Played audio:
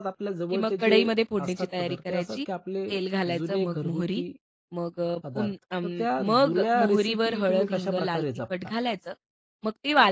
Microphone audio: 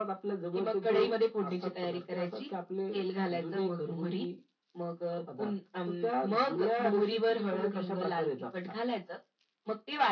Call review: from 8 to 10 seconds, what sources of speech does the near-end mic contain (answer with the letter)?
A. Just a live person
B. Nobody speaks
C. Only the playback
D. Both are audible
C